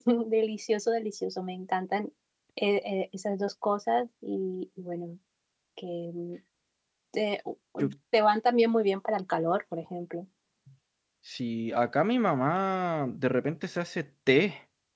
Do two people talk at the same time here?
No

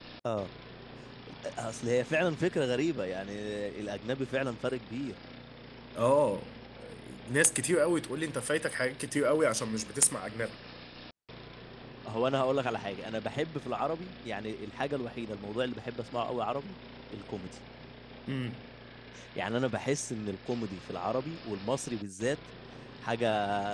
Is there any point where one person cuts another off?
No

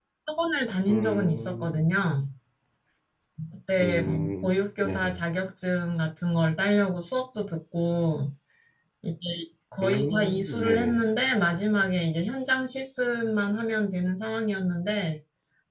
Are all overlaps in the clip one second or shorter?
No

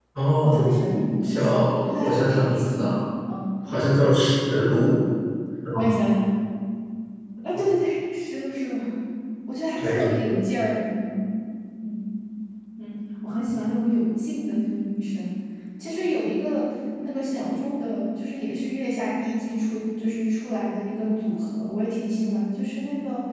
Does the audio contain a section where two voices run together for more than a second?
Yes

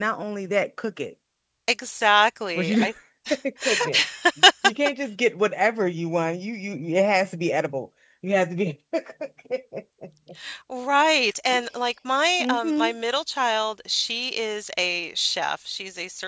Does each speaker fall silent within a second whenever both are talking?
Yes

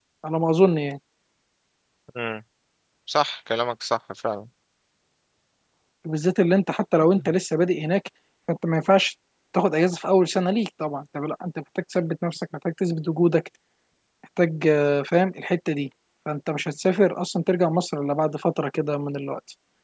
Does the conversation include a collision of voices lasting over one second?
No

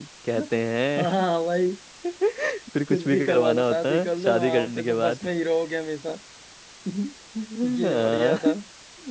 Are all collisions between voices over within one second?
No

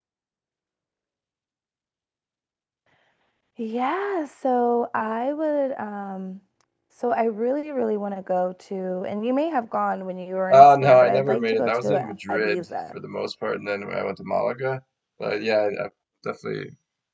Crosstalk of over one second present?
Yes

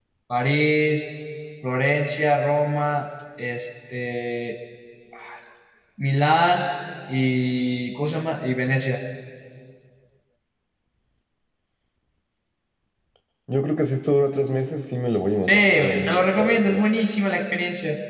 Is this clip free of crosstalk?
No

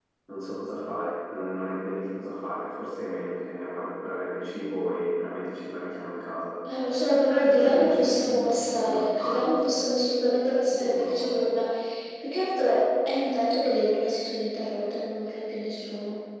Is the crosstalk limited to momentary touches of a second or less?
No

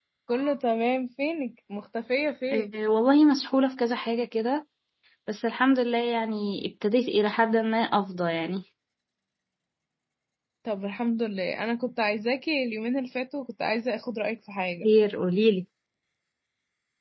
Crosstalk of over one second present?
No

